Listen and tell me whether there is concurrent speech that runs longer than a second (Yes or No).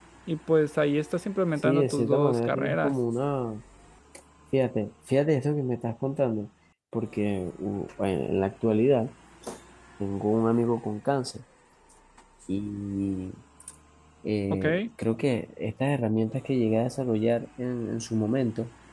Yes